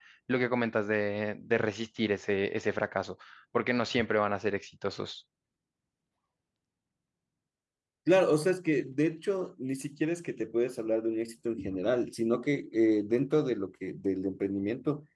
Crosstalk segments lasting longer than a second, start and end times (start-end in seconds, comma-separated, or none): none